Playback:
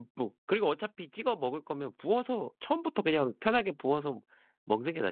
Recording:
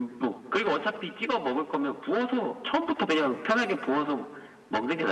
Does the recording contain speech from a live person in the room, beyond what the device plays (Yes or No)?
No